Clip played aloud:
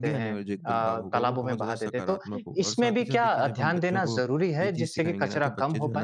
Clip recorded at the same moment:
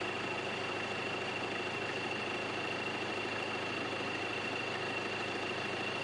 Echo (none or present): none